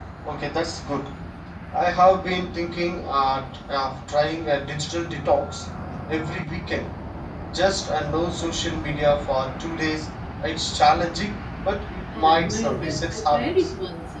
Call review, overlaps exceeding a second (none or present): present